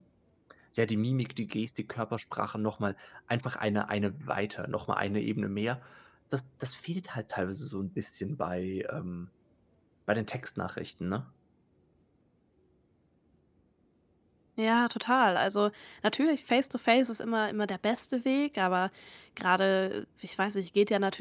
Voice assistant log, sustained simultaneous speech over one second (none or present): none